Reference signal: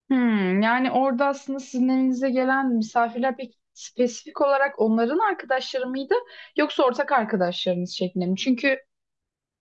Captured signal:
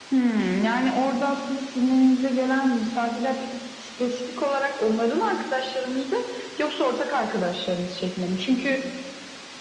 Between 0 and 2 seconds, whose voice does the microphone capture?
echo only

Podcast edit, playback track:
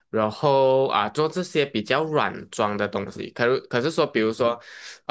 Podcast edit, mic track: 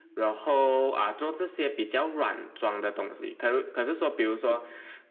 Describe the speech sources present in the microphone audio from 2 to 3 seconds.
echo only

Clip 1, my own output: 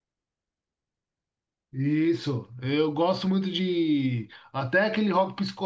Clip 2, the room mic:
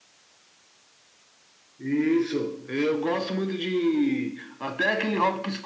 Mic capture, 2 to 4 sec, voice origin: echo only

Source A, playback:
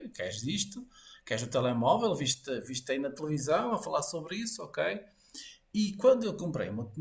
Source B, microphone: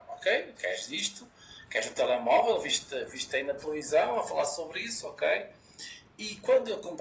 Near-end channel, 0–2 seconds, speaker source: echo only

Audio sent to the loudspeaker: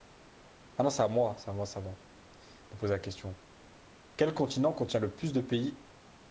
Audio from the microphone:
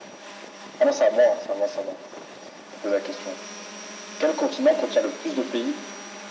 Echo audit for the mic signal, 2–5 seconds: echo only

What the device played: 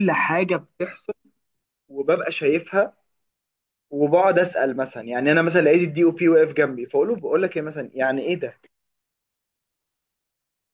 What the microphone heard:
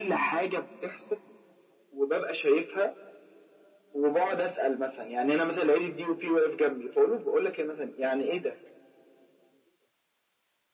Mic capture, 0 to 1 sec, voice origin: echo only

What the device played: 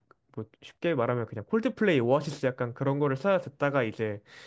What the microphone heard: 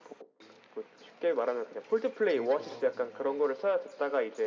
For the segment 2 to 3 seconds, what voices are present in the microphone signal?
both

